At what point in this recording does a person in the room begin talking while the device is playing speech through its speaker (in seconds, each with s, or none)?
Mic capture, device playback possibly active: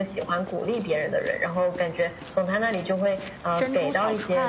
3.5 s